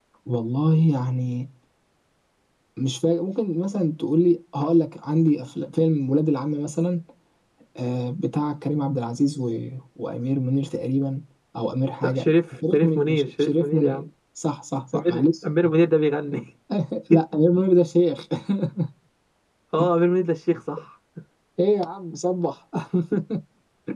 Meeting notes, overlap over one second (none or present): present